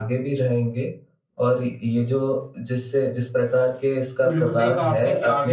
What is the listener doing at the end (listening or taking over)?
taking over